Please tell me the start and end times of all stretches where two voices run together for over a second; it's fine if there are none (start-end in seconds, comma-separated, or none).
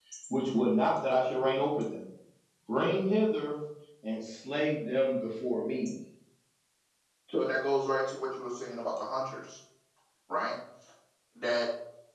none